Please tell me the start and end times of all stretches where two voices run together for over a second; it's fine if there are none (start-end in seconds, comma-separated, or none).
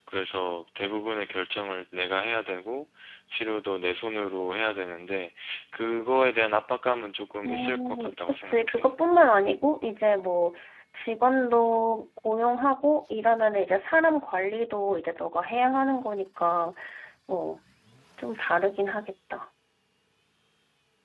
7.5-8.9